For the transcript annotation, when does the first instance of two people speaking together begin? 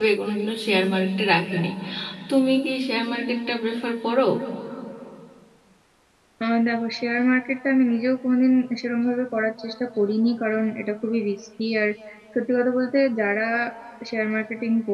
none

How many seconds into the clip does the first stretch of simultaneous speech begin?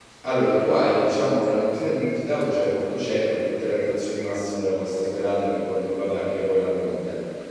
none

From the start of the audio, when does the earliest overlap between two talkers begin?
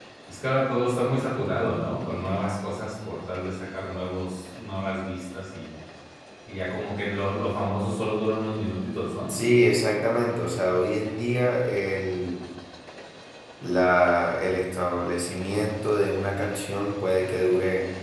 none

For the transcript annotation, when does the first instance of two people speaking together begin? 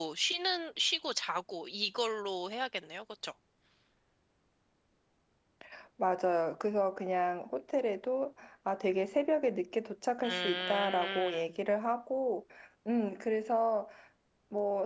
10.2 s

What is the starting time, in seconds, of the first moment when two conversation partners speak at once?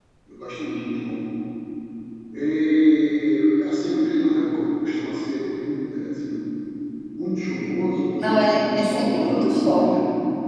8.2 s

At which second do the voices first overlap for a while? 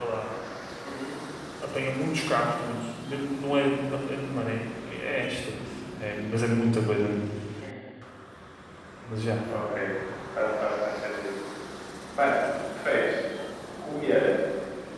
none

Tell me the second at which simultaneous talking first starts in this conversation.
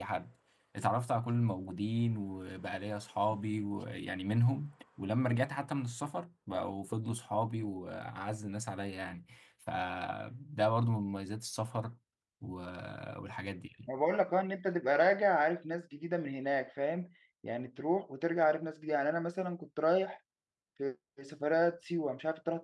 none

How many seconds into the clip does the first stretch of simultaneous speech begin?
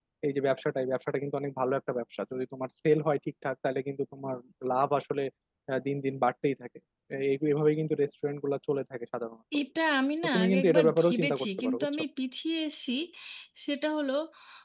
10.2 s

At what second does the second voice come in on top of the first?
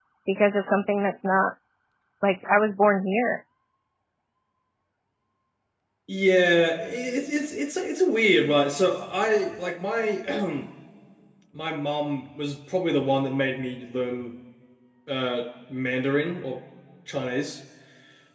none

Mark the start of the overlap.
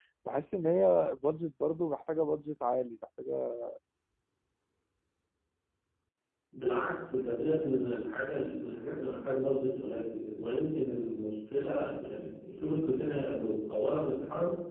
none

